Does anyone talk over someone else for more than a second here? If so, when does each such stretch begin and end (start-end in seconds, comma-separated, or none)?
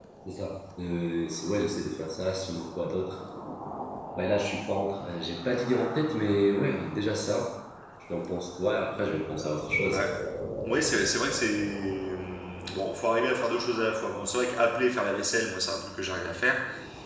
none